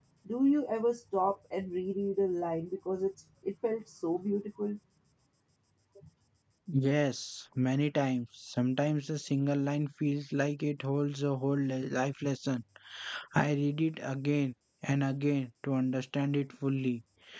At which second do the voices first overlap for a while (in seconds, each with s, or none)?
none